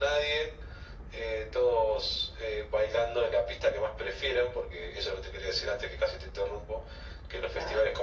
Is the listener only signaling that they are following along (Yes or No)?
Yes